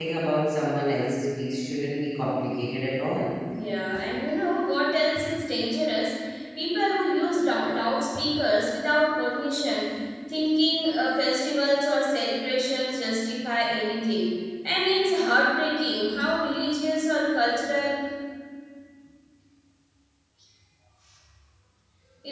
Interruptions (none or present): none